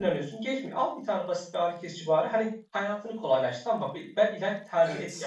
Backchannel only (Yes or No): Yes